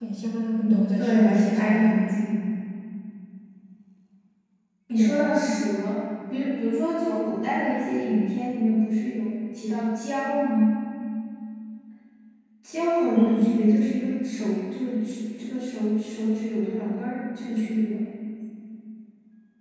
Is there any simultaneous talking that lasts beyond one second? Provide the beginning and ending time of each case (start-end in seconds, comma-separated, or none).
0.6-2.1